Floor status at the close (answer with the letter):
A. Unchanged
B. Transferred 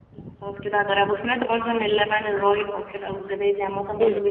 B